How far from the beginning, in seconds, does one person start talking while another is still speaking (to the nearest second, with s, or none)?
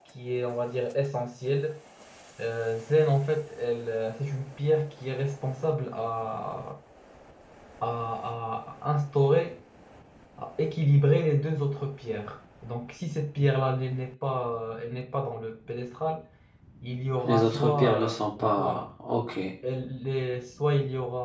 17 s